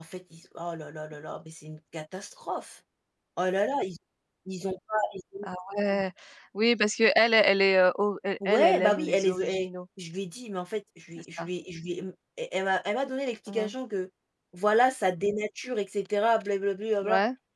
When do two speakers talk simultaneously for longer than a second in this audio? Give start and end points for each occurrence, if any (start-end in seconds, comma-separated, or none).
8.4-9.7